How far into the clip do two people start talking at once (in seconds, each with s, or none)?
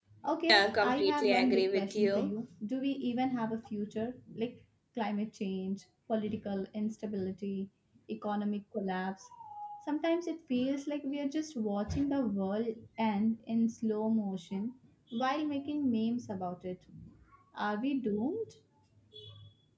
0.5 s